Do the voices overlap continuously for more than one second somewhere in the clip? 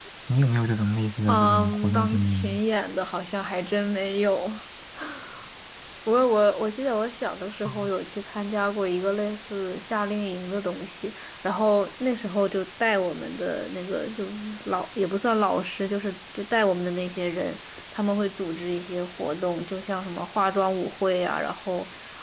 Yes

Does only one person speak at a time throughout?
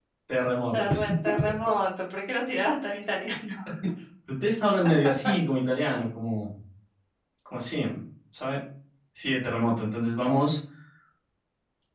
Yes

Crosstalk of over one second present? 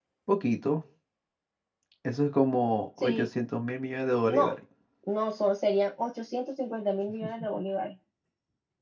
No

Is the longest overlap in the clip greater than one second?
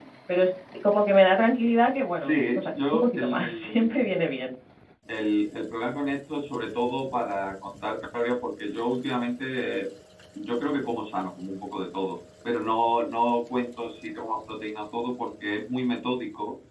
Yes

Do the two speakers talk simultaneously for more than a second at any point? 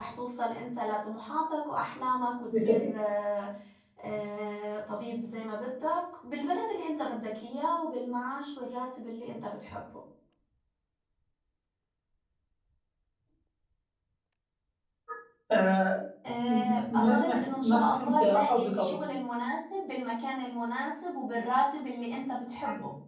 Yes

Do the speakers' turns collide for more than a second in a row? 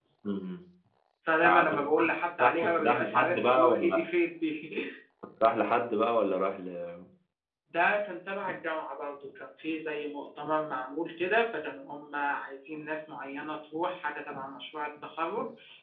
Yes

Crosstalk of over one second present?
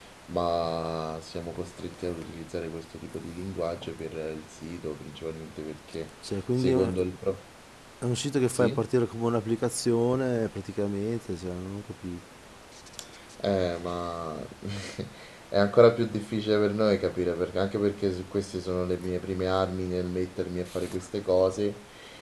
No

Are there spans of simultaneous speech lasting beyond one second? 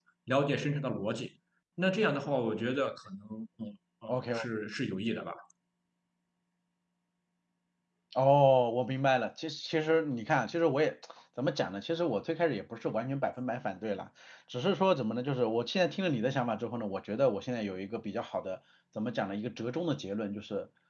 No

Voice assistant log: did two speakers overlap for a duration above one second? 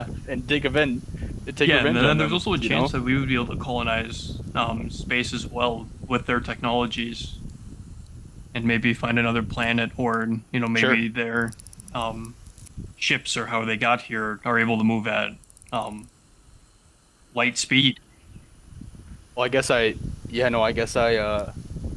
Yes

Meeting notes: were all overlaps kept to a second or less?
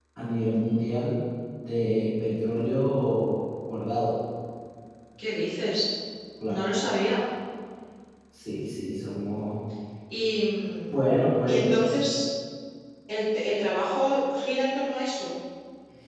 Yes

